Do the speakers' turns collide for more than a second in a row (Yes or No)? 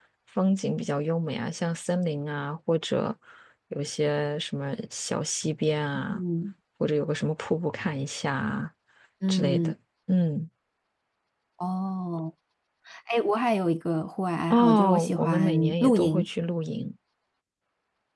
Yes